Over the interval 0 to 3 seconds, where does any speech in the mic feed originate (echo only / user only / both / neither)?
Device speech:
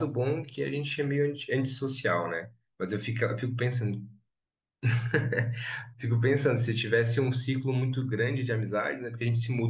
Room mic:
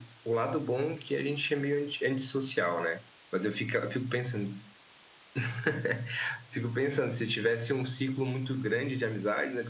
echo only